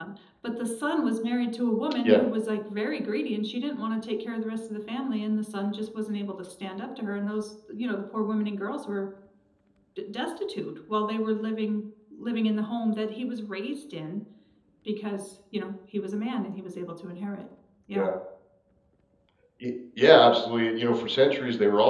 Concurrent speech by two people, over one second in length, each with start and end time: none

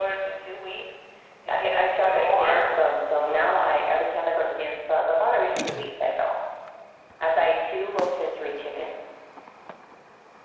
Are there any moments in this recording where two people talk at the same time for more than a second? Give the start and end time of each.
1.5-2.7

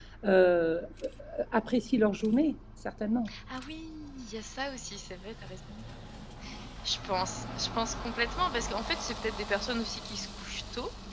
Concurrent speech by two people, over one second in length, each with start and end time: none

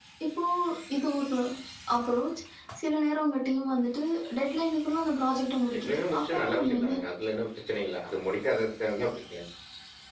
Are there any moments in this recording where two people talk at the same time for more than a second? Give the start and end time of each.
5.7-7.0

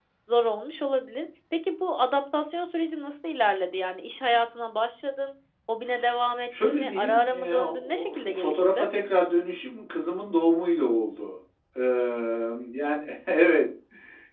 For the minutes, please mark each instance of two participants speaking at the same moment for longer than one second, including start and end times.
6.6-8.9

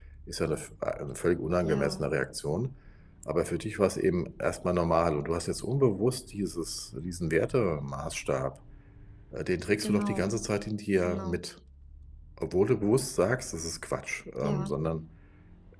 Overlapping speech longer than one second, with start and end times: none

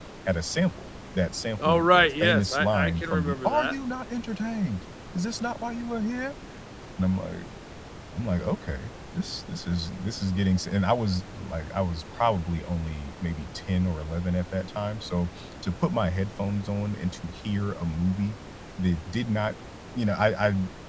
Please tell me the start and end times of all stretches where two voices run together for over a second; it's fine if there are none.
1.6-3.7

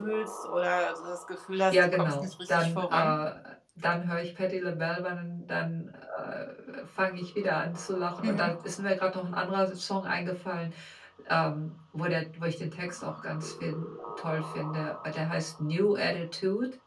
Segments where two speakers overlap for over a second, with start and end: 1.7-3.1

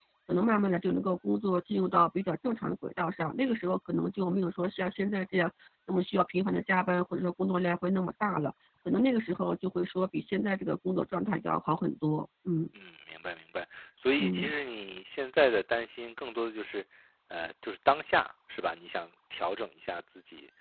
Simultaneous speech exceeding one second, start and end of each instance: none

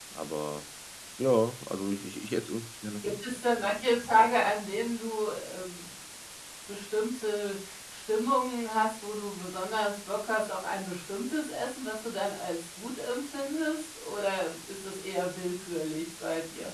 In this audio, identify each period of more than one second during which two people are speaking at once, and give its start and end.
none

